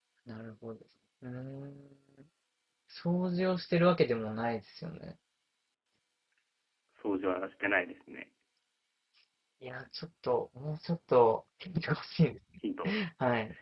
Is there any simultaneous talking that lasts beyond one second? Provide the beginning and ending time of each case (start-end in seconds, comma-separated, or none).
none